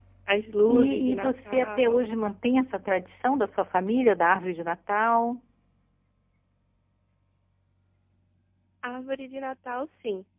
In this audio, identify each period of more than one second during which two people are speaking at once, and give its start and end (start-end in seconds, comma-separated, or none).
0.7-2.1